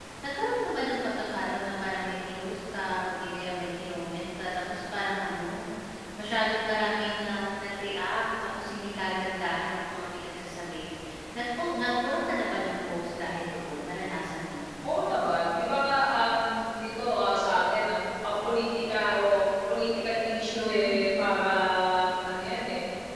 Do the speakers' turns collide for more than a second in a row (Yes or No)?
No